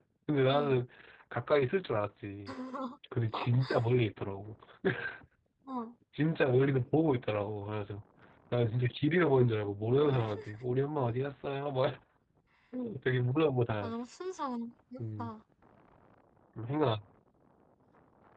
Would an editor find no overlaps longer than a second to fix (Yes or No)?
Yes